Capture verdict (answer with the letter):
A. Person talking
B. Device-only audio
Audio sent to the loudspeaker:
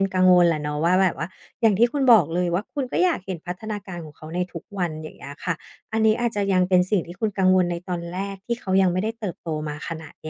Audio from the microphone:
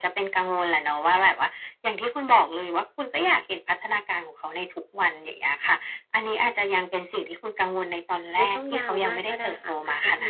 A